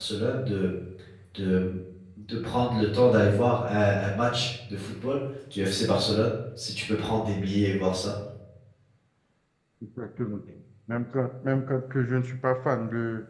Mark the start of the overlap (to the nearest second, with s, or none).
none